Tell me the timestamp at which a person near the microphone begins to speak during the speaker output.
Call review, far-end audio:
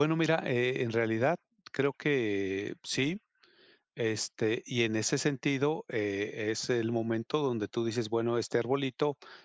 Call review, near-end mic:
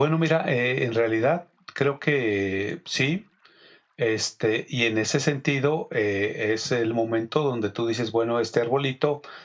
none

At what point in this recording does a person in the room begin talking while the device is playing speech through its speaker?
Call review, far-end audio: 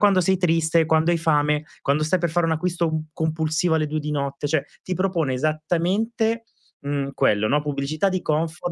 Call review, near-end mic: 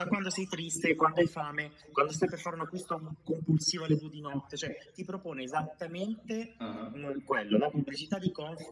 7 s

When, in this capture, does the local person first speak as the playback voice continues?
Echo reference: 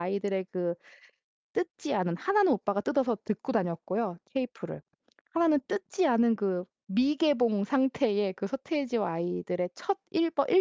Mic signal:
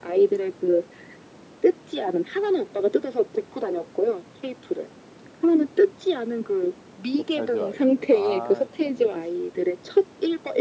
7 s

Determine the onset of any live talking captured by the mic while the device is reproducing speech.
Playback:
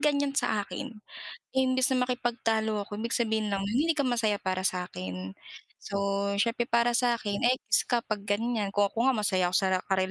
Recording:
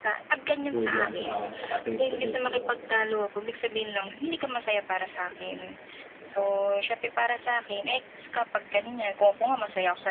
1 s

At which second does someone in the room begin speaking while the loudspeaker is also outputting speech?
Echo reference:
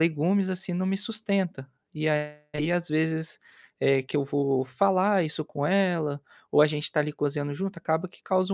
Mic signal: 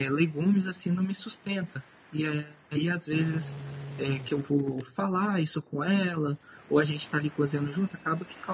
none

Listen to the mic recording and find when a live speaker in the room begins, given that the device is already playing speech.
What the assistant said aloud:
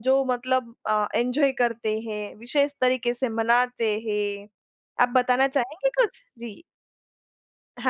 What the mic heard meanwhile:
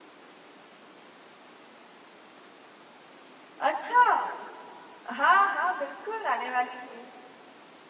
4 s

